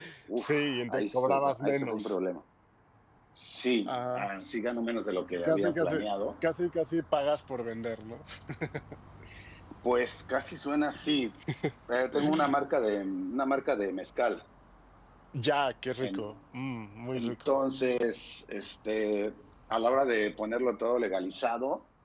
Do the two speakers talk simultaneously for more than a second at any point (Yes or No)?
Yes